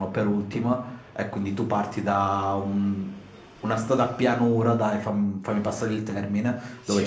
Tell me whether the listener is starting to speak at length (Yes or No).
No